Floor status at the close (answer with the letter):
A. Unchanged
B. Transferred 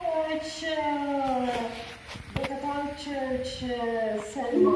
B